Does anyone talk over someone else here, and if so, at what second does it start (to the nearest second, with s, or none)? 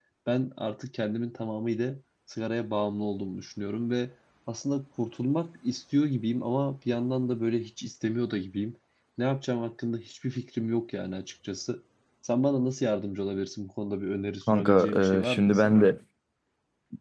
14 s